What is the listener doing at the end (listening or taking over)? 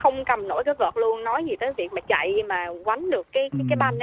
taking over